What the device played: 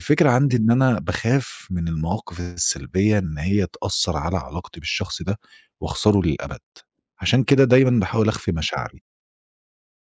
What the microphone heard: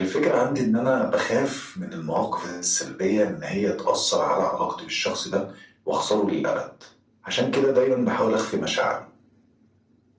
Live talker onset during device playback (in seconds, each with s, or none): none